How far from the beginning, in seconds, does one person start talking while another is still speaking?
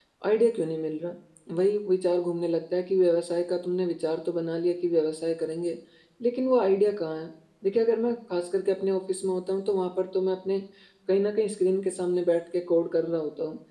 none

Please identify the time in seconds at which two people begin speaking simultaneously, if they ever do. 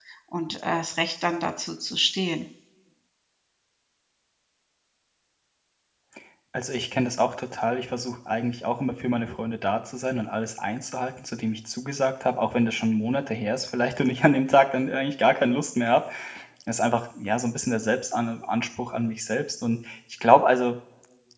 none

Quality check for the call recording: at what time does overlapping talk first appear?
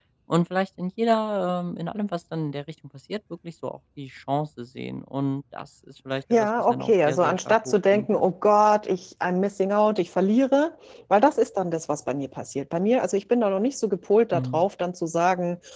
6.3 s

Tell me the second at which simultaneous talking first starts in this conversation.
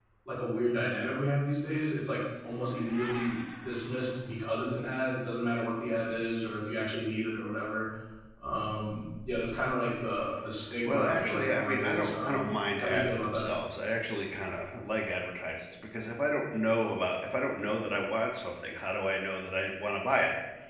10.8 s

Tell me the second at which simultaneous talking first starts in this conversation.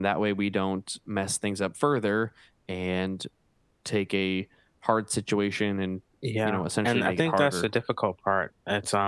6.4 s

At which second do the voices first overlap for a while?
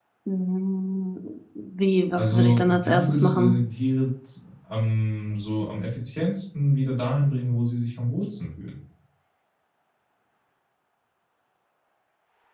2.2 s

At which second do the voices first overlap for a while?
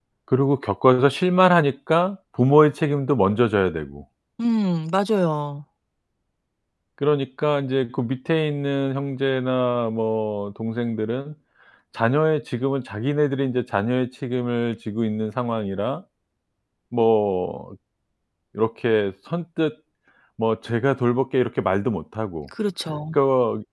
none

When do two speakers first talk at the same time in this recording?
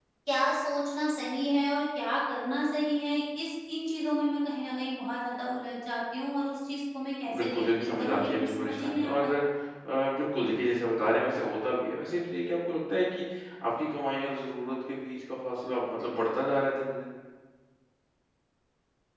7.3 s

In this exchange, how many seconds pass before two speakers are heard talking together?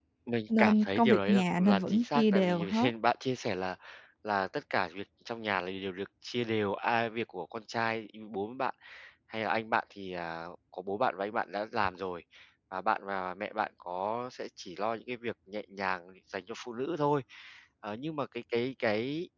0.6 s

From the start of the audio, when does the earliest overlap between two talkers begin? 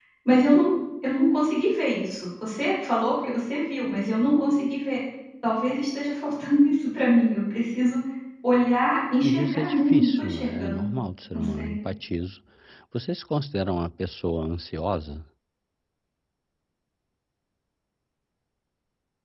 9.2 s

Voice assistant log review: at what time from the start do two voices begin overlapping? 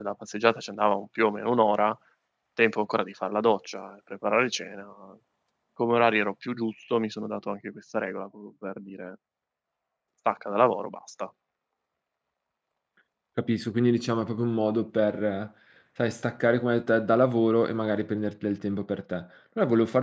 none

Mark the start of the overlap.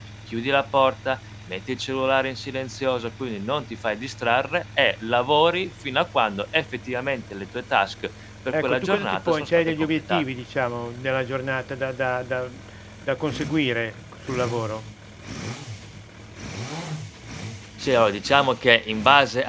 8.5 s

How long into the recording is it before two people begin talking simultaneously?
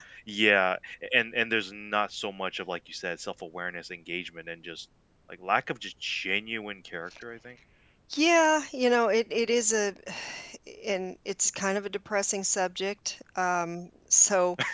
none

